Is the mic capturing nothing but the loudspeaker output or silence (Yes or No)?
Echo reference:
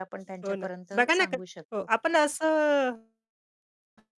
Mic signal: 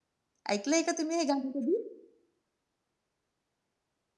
No